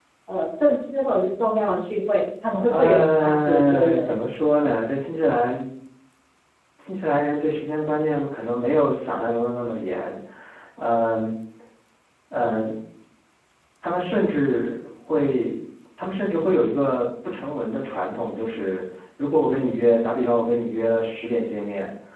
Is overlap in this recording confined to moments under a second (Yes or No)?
No